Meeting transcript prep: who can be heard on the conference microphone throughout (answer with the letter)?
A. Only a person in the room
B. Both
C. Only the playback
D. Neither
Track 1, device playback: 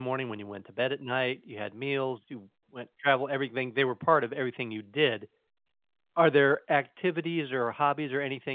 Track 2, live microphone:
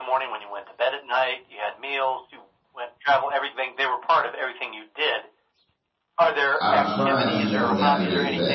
B